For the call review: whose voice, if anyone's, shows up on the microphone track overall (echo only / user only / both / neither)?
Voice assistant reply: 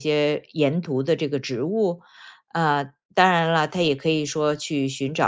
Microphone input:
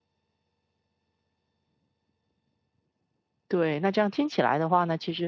user only